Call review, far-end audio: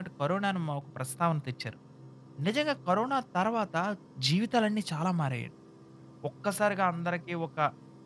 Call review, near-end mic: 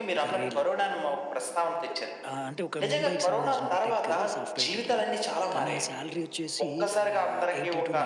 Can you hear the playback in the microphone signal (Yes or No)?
Yes